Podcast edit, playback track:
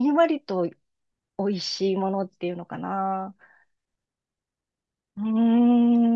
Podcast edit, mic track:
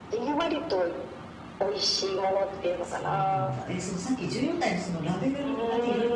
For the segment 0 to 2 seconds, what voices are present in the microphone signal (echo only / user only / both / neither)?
echo only